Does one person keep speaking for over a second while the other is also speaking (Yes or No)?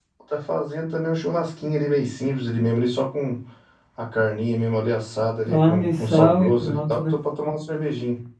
Yes